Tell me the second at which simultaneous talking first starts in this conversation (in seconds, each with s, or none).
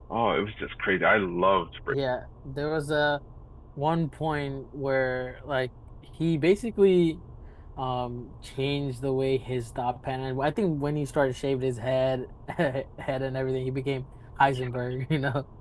none